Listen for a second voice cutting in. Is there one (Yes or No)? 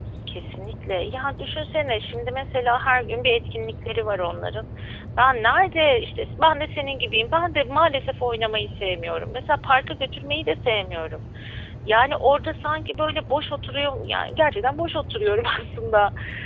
No